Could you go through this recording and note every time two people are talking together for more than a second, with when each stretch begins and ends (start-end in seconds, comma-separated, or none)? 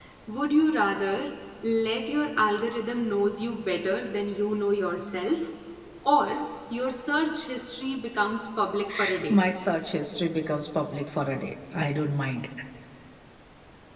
none